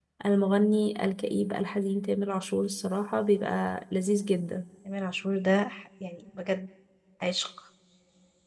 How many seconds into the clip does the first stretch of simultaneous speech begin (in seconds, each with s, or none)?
none